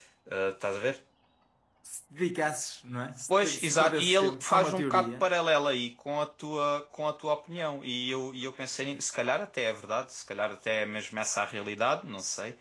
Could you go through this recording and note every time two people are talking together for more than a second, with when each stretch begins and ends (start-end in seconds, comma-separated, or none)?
3.3-5.3